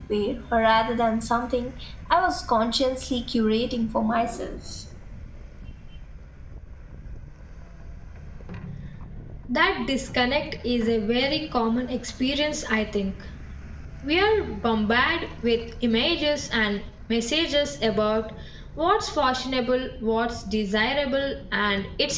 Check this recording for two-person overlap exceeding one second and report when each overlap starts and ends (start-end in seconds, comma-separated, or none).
none